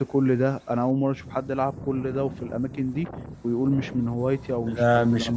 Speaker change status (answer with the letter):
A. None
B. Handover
B